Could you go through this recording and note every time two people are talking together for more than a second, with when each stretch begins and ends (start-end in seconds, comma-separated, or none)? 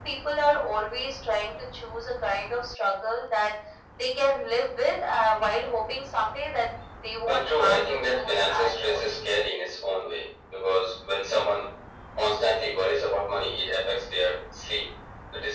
7.3-9.1